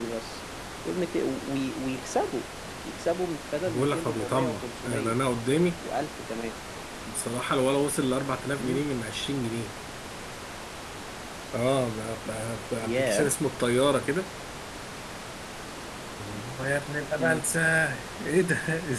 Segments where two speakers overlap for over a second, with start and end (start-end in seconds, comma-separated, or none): 3.7-5.1